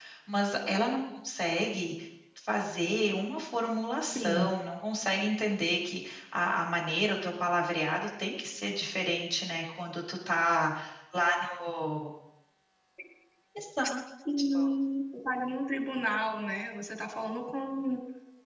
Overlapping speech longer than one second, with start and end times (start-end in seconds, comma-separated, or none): none